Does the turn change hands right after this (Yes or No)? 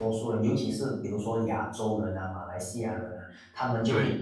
No